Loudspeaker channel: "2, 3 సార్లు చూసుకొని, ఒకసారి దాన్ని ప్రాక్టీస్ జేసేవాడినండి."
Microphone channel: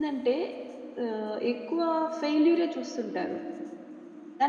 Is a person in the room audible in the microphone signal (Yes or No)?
Yes